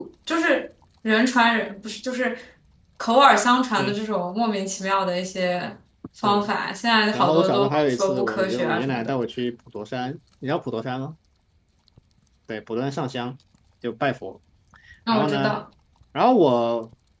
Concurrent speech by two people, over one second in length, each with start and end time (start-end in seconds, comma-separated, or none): 7.1-9.1